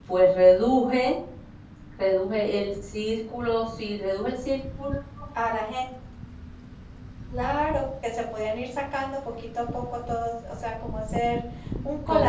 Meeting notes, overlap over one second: none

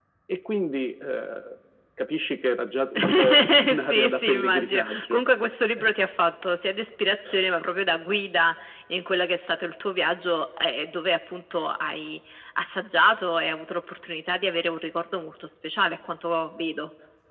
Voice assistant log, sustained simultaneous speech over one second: present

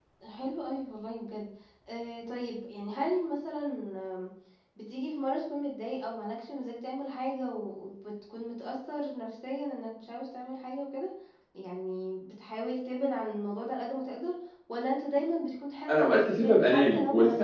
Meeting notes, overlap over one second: present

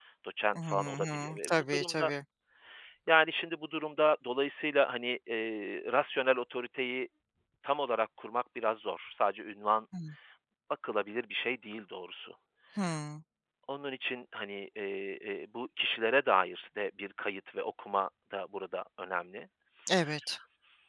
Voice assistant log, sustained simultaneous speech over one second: present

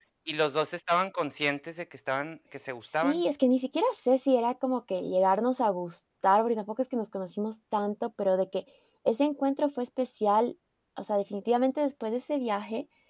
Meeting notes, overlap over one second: none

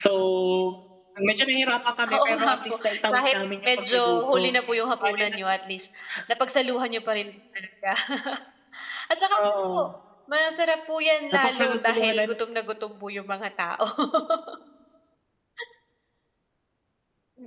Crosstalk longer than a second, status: present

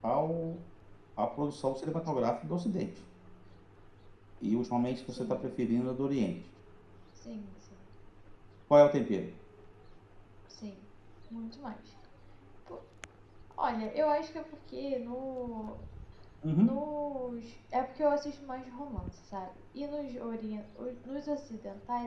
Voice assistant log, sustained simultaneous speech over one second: none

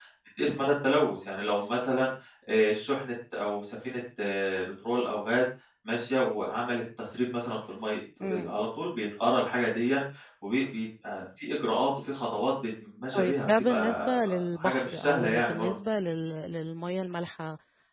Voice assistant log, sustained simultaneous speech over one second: present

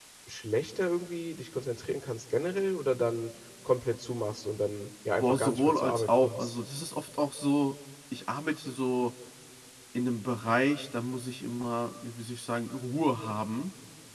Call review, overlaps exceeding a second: present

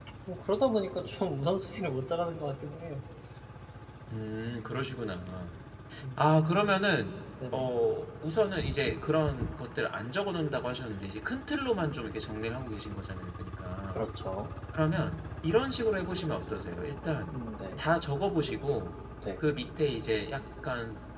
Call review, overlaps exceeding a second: none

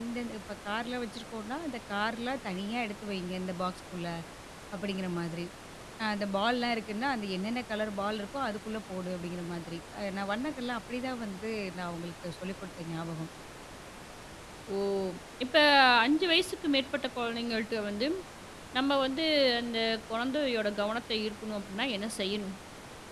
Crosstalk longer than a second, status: none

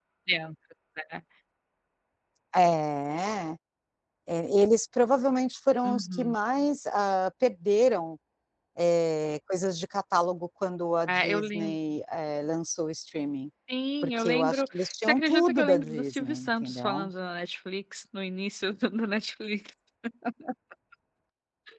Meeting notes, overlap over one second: present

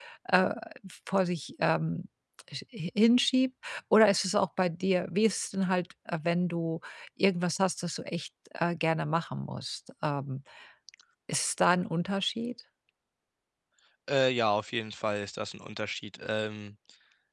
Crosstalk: none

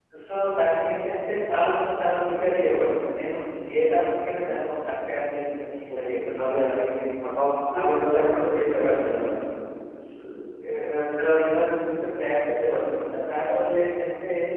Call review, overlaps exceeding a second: present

